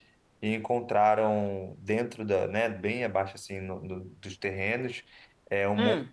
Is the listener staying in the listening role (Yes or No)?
Yes